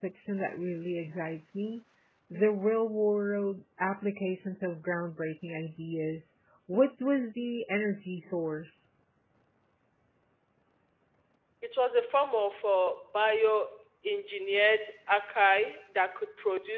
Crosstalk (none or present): none